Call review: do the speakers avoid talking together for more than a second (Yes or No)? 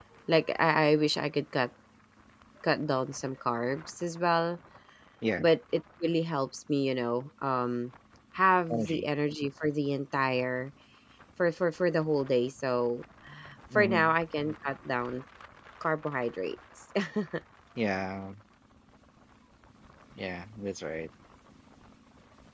Yes